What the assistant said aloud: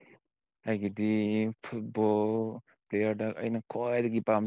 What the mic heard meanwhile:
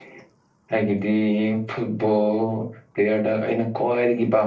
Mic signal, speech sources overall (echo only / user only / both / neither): echo only